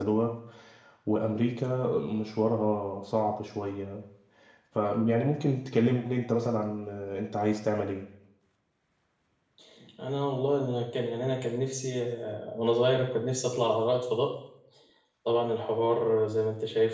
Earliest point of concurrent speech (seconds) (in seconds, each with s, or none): none